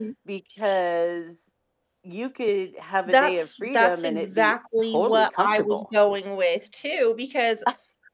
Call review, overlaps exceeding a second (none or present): present